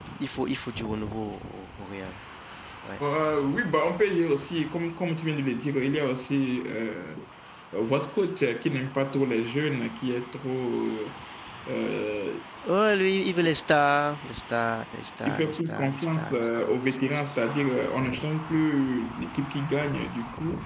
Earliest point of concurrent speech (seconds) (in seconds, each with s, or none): 15.3 s